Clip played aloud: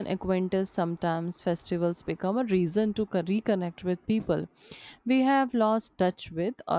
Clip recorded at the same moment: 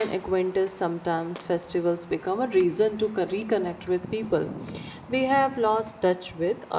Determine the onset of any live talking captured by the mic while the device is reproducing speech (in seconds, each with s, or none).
none